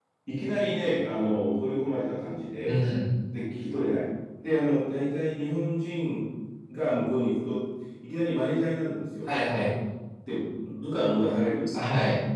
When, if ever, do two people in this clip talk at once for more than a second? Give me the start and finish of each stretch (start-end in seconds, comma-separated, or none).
none